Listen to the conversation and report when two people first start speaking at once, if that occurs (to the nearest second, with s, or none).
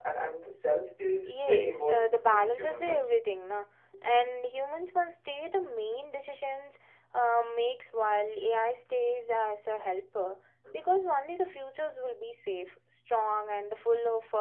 1 s